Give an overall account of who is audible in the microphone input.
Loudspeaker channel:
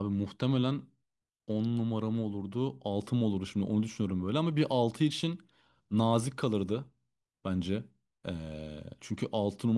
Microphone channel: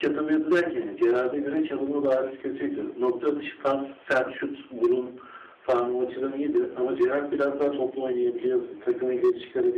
user only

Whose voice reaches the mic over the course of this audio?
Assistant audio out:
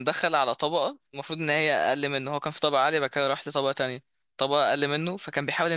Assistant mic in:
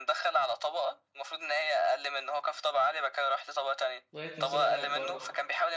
both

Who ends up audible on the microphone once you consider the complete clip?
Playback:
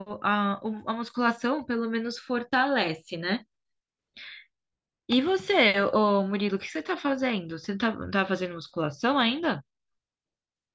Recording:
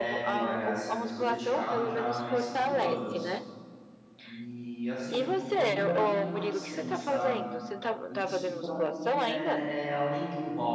both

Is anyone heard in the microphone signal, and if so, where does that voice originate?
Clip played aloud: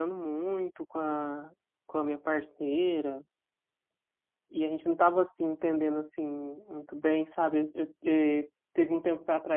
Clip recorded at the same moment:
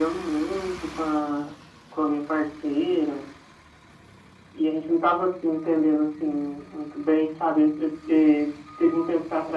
echo only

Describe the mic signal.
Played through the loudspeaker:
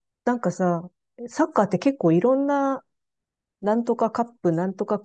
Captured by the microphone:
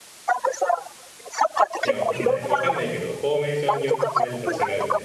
both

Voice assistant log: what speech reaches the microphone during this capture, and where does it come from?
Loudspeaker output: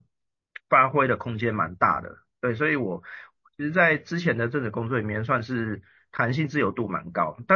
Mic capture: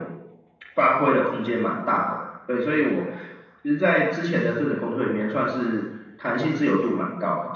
echo only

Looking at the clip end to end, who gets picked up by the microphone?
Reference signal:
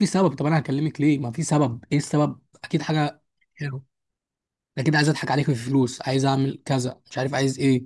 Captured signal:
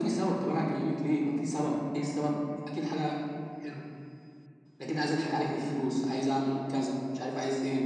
echo only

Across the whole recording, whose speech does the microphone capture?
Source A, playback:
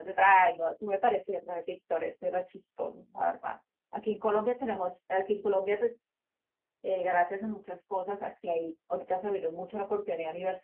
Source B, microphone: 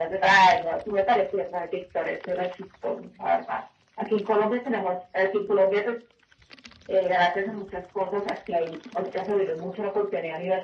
echo only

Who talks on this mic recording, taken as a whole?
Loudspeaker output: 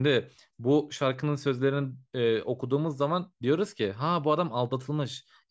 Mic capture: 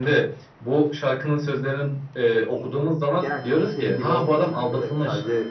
both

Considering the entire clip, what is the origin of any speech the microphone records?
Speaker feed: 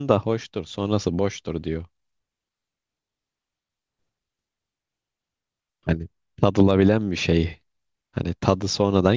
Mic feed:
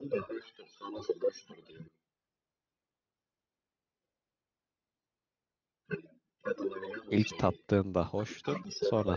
both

